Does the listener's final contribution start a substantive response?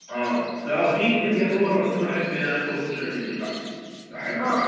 Yes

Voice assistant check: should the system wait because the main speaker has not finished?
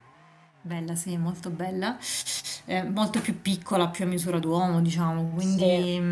Yes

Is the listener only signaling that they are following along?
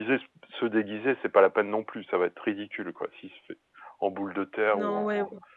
No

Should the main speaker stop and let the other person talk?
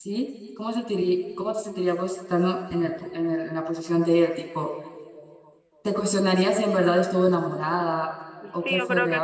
Yes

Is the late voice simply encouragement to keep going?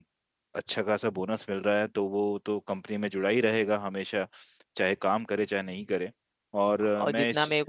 No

